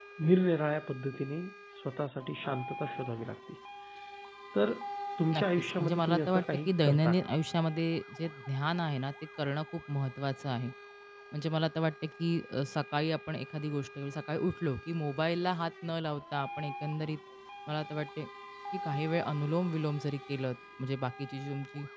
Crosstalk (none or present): present